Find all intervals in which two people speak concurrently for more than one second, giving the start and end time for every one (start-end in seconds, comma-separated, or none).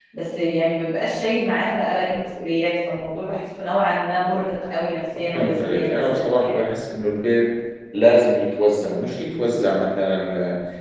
5.3-6.6